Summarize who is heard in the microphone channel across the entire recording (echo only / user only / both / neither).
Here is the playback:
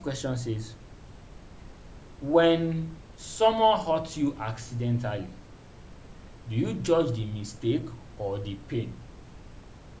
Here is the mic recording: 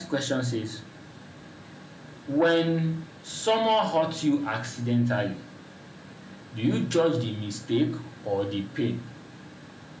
echo only